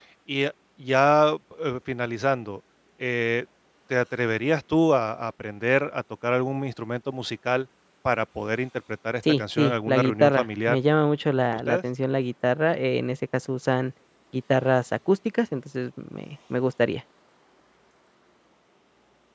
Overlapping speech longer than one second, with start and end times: 9.3-10.8

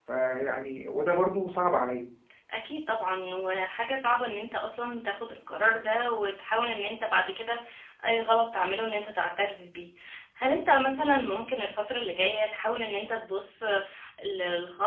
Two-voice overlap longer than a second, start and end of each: none

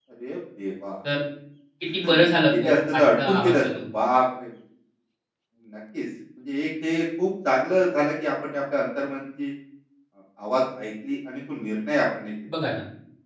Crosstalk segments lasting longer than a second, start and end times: 2.0-3.6

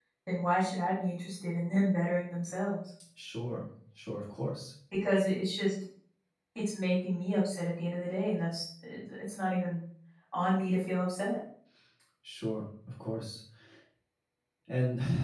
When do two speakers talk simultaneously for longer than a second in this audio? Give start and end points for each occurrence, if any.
none

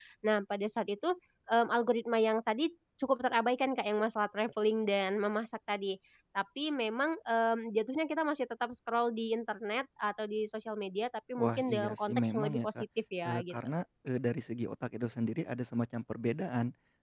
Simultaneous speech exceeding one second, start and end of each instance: 11.4-12.8

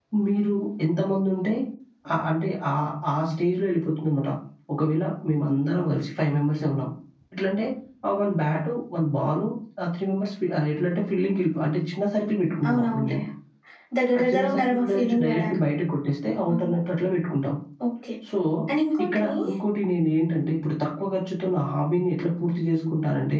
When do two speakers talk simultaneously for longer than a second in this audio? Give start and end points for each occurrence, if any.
14.2-15.6

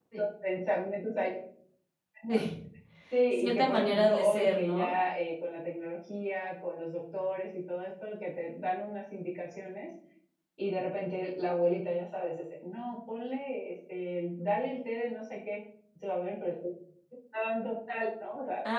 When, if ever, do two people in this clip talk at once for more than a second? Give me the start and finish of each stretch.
3.3-5.0

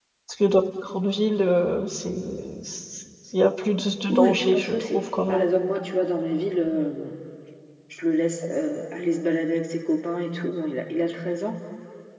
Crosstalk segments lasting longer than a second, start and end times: 4.1-5.5

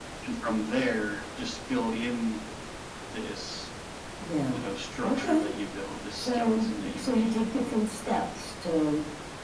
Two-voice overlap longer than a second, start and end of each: 6.1-7.4

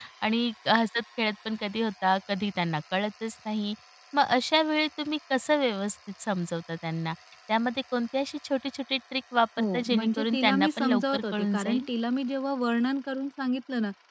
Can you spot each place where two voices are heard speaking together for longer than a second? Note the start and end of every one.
9.6-11.8

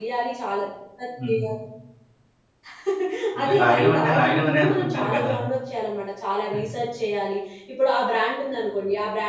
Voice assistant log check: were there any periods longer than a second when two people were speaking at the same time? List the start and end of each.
3.4-5.3

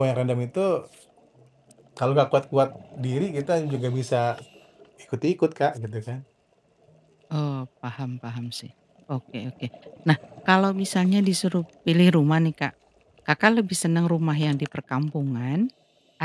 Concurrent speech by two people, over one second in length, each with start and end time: none

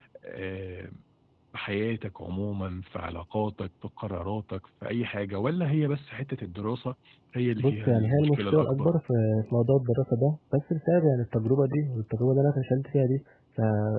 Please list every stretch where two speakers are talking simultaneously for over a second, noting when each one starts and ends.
7.6-8.9

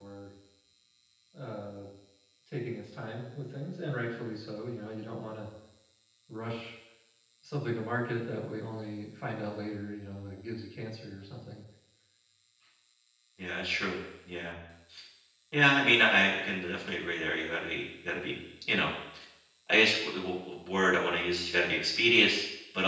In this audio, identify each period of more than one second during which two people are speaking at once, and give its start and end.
none

